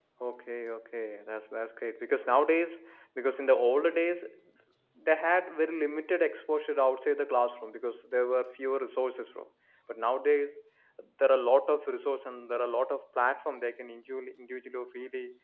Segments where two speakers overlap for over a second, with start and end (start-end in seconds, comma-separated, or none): none